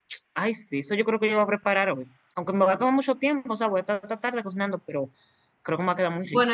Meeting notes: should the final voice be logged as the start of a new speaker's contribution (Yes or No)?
Yes